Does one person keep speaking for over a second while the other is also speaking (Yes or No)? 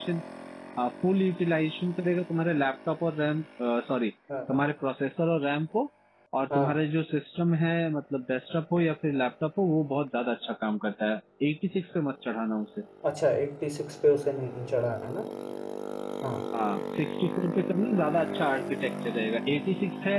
No